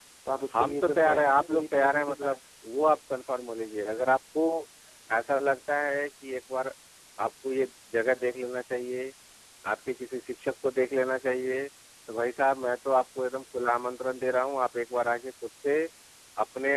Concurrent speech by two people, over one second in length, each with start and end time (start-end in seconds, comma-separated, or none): 0.6-2.4